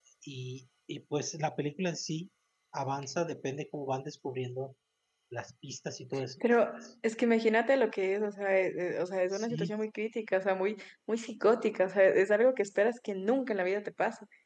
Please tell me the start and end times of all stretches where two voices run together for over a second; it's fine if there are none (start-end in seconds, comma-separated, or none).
none